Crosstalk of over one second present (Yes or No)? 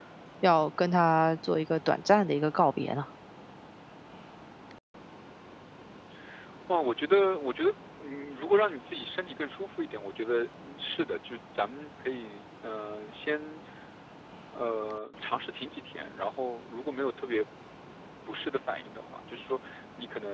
No